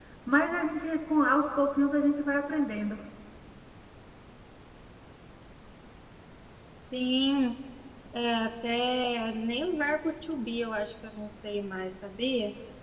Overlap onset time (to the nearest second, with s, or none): none